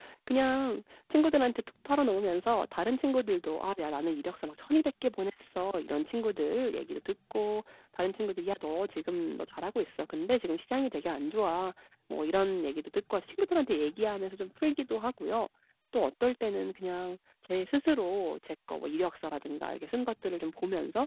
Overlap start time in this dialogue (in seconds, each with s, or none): none